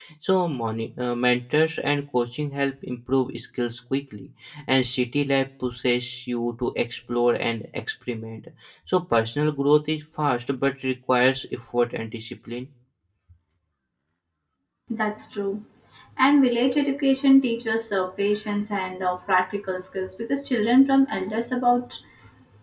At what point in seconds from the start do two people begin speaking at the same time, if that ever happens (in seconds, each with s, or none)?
none